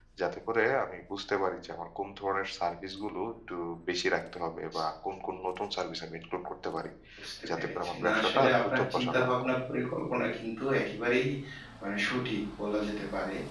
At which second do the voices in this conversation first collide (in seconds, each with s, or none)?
7.6 s